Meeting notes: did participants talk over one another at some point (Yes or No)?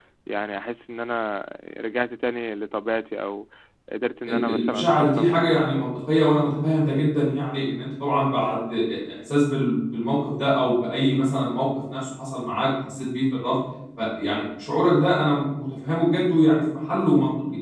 Yes